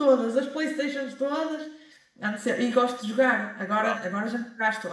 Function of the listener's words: listening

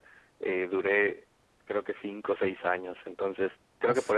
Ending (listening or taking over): listening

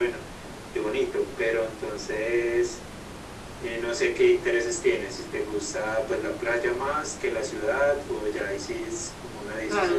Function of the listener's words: taking over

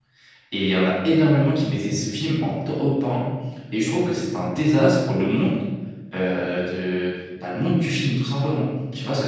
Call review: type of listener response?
taking over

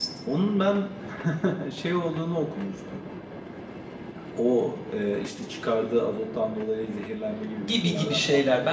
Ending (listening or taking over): taking over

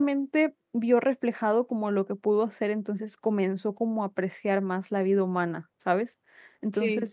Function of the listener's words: listening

